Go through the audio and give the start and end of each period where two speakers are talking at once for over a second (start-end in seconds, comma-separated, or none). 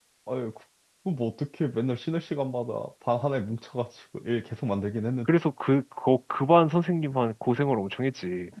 none